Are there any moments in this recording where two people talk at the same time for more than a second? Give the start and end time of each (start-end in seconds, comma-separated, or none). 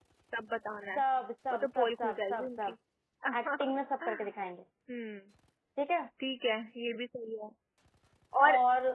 1.5-2.7